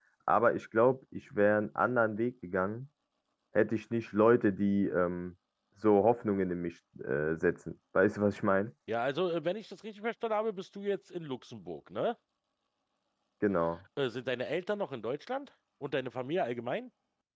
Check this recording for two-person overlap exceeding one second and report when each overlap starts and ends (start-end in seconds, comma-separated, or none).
none